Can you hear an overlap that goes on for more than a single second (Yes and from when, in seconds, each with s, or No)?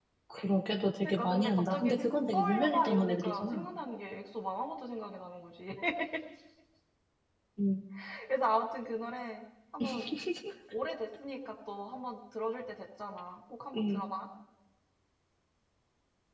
Yes, from 1.0 s